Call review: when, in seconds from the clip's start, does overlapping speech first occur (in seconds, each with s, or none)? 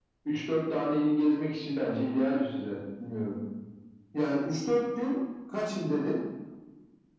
none